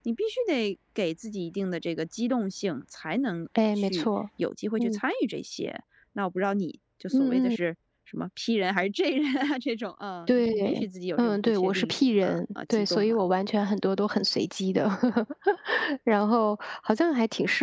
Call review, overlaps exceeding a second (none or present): present